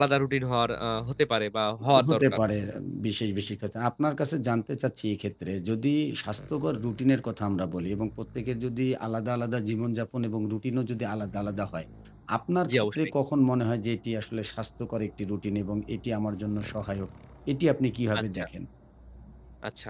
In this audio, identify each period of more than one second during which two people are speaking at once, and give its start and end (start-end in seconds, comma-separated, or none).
none